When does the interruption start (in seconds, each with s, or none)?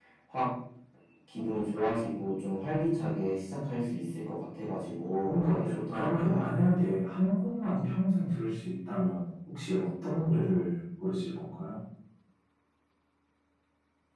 5.2 s